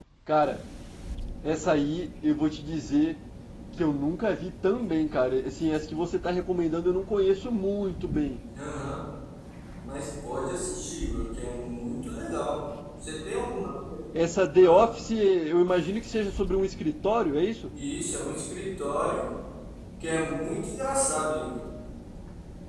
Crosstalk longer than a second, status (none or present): none